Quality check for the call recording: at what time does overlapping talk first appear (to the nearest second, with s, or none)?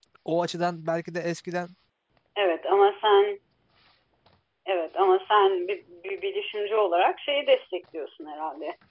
none